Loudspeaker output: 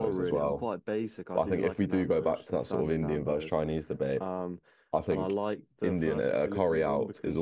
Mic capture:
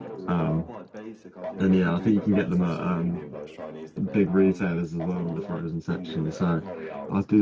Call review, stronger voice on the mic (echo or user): user